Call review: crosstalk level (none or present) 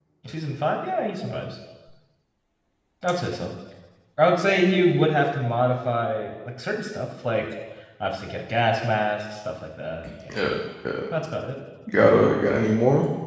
none